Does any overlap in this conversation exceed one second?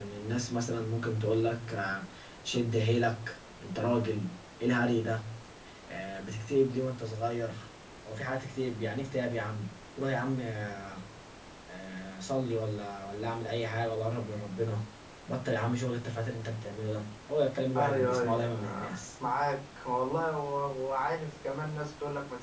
Yes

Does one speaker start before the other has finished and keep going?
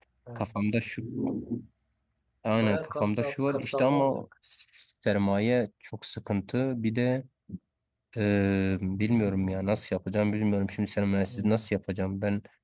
Yes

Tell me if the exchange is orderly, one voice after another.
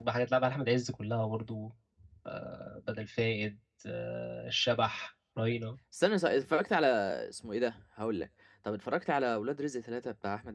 Yes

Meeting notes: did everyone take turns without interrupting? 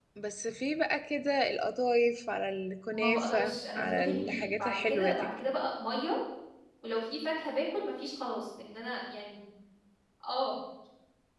No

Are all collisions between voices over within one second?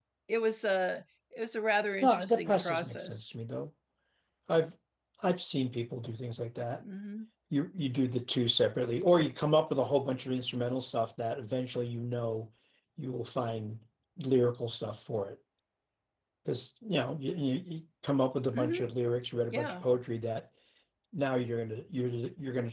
No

